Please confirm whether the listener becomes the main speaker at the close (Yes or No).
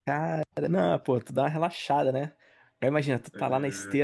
No